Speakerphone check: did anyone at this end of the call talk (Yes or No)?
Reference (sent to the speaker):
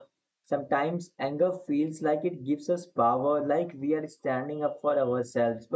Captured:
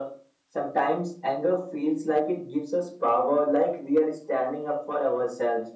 No